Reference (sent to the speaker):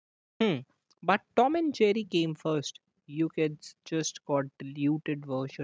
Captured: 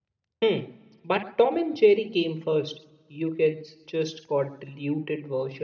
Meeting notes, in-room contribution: none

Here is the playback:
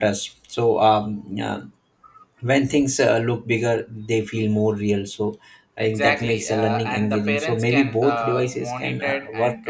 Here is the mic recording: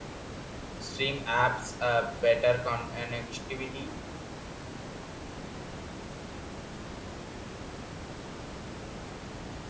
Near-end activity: present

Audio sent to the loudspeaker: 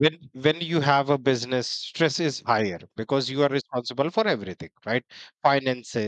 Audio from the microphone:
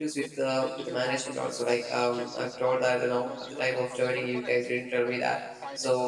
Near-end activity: present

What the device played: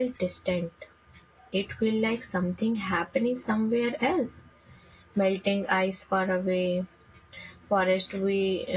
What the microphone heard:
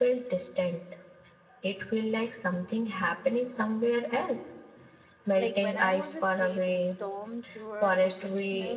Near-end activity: present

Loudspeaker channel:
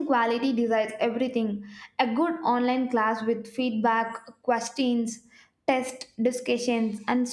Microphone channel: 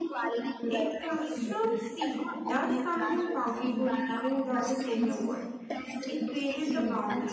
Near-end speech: present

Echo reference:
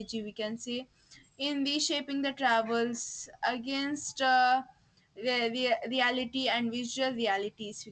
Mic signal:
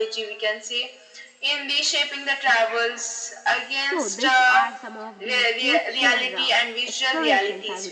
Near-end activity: present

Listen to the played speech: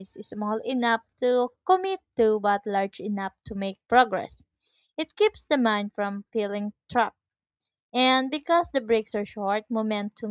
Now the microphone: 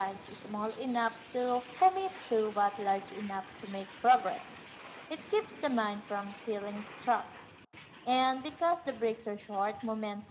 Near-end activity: none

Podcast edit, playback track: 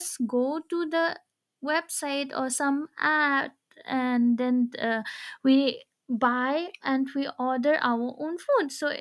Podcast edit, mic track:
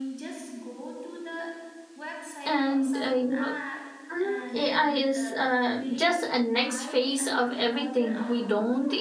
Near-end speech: present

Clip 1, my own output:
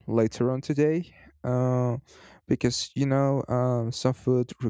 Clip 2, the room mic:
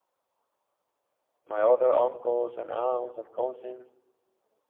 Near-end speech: present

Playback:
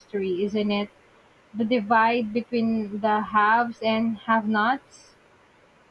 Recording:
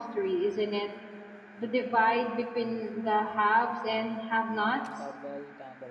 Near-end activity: present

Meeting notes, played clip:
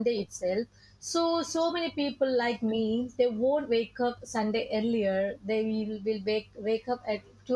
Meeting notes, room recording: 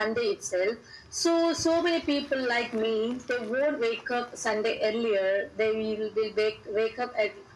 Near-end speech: none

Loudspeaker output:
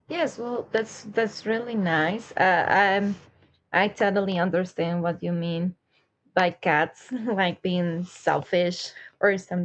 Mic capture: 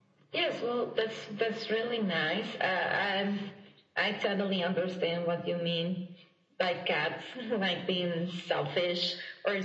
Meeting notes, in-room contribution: none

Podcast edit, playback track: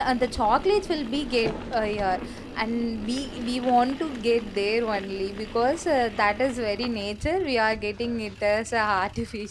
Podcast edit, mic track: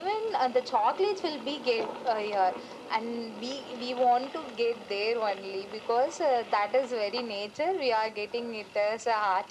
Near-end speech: none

